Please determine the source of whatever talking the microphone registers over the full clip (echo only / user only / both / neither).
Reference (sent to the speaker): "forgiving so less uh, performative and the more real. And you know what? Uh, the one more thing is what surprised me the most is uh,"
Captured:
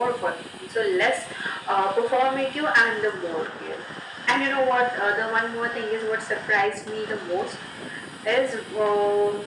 echo only